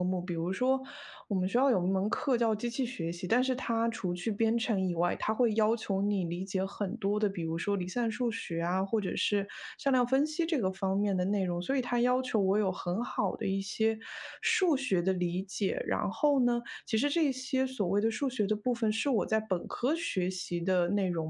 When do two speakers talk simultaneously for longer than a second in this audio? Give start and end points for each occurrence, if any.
none

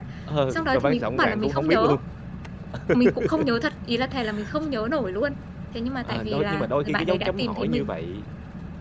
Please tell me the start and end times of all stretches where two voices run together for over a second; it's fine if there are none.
0.5-1.9, 6.0-7.9

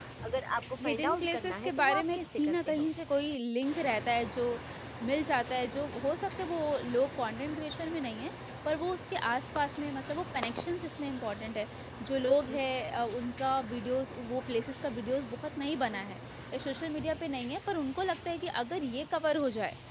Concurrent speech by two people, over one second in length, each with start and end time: 0.8-2.9

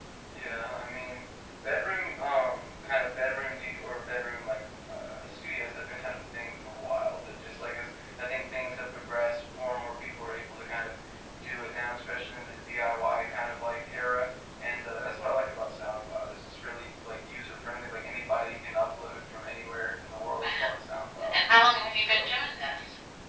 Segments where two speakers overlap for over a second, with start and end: none

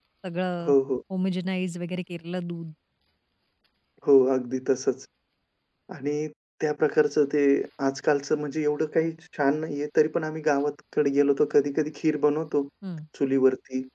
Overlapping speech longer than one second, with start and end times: none

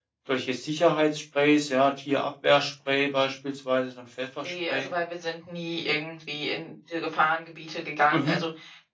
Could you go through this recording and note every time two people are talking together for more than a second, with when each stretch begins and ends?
none

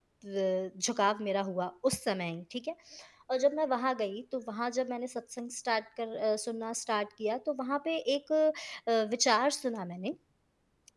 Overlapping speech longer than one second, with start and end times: none

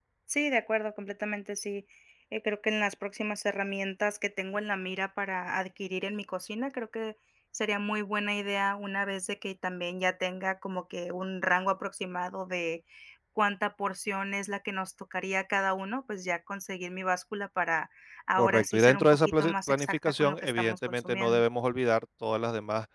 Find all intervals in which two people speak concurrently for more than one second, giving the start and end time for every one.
18.4-21.4

